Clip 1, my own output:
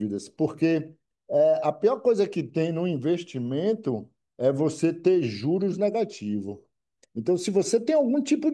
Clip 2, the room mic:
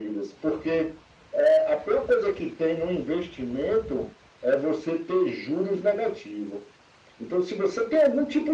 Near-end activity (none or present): none